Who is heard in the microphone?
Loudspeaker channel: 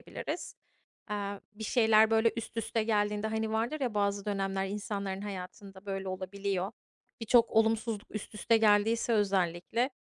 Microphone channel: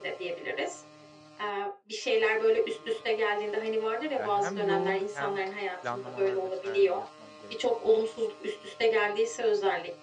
both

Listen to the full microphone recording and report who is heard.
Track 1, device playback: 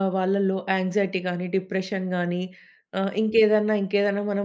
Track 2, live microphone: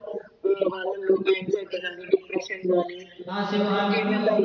both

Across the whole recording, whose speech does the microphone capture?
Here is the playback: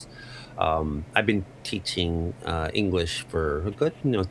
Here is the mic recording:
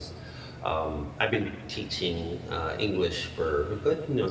echo only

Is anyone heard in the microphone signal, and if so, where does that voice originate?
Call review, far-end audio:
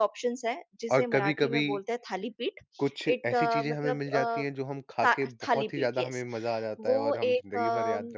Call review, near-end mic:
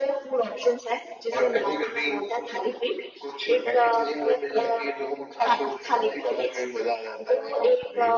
echo only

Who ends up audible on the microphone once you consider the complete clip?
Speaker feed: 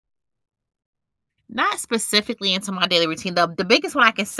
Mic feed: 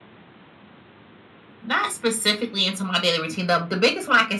echo only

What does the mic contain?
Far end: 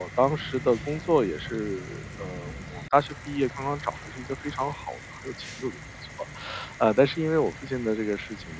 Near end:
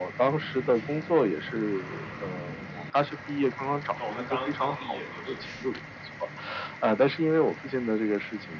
both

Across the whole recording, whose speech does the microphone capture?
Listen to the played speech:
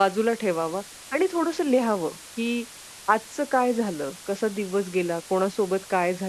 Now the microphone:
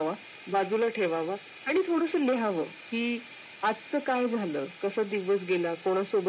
echo only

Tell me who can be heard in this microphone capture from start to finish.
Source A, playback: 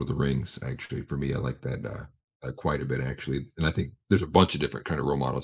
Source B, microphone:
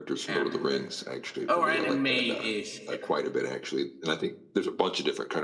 both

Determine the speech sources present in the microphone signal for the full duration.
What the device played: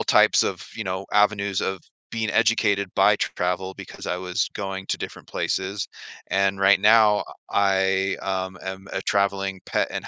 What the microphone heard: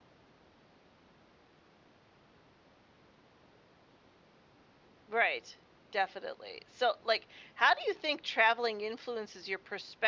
user only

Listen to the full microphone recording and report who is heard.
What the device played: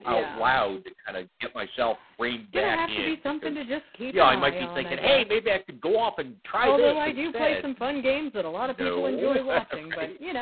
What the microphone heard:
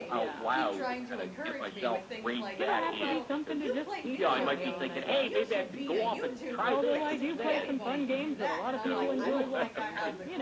both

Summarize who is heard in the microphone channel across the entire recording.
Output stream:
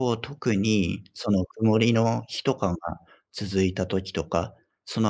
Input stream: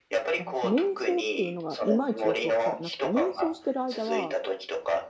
both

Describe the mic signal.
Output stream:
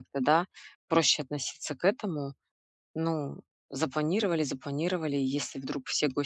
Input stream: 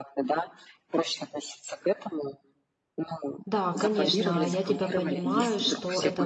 both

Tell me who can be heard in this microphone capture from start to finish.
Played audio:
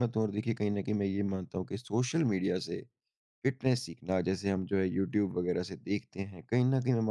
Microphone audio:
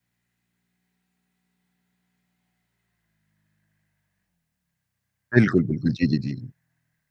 user only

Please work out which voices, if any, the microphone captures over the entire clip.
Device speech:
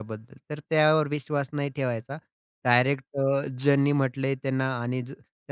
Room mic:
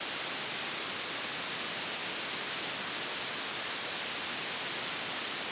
neither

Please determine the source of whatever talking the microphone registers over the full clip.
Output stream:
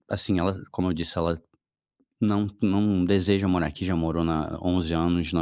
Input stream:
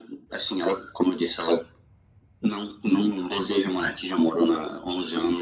echo only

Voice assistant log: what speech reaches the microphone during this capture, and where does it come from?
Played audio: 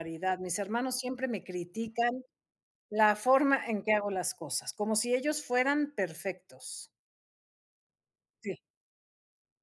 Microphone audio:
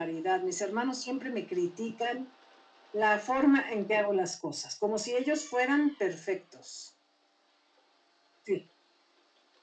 echo only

